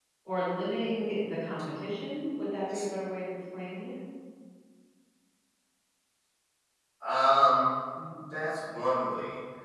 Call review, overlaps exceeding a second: none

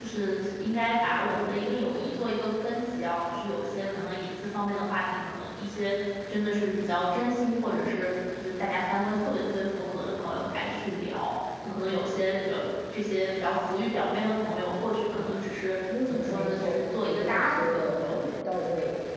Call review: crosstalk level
present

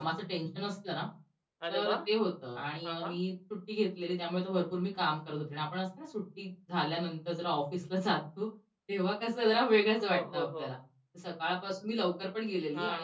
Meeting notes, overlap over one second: none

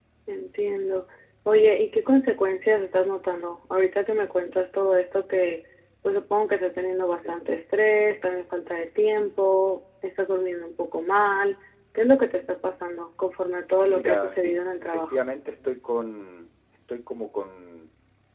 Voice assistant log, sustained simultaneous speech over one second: present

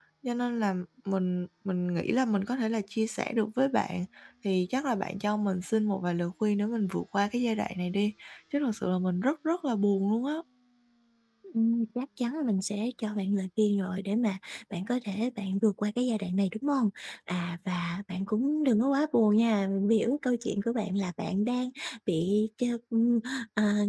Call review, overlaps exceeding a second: none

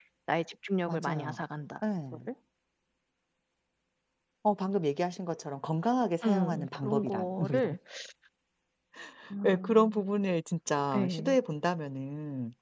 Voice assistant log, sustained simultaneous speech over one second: present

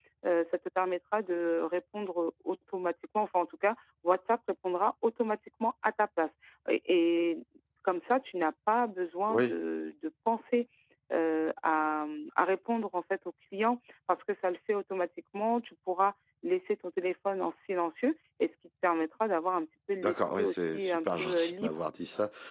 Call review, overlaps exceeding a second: present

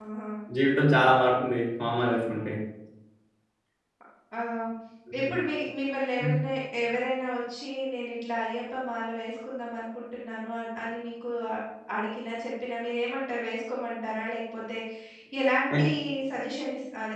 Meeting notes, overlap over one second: none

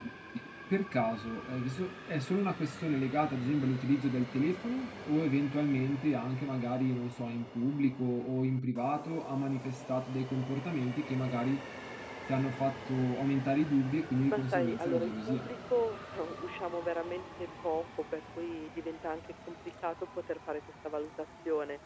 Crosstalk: present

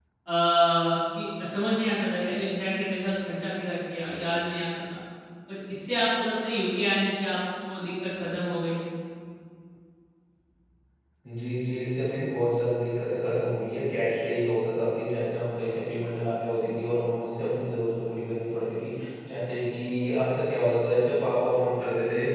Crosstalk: none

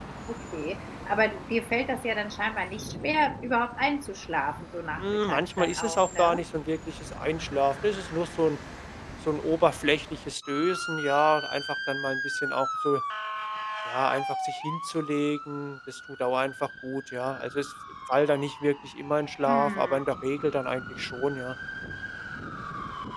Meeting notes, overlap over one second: present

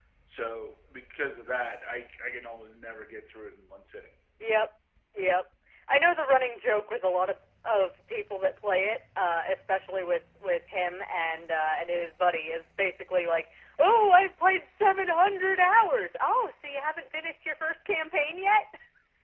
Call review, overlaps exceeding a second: none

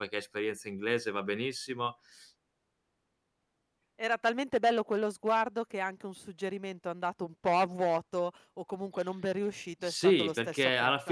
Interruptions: present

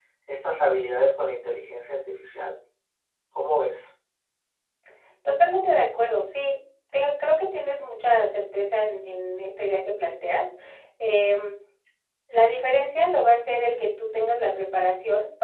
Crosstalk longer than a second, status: none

